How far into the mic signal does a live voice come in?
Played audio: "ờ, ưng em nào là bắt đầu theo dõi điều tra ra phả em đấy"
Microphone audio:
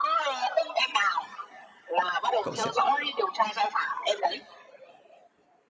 2.4 s

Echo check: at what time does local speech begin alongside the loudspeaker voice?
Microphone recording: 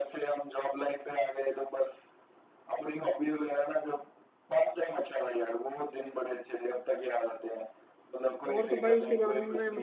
8.5 s

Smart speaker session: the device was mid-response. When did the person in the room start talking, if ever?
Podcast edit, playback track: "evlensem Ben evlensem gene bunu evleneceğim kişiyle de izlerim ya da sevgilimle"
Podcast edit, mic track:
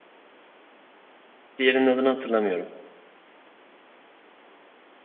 1.6 s

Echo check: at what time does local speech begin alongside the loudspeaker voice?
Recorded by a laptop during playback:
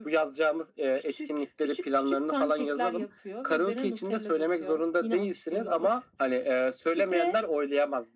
none

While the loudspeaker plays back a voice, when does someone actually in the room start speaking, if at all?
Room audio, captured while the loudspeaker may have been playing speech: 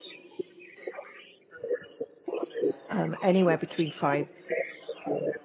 2.9 s

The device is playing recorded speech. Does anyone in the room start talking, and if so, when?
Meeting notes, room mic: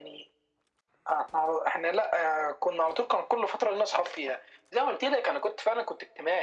none

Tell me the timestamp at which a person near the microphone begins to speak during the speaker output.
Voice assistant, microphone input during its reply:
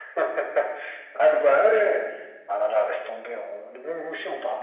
none

